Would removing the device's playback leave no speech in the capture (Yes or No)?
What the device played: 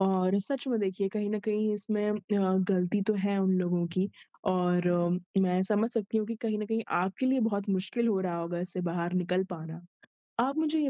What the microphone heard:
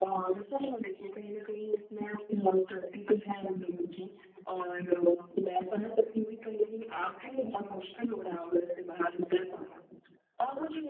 Yes